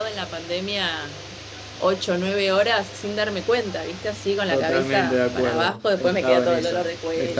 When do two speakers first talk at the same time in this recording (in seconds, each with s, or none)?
4.5 s